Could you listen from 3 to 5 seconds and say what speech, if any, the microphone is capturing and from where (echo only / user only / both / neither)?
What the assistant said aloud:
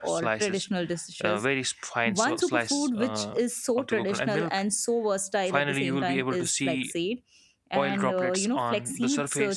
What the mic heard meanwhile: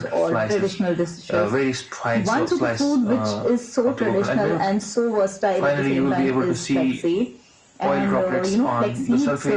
echo only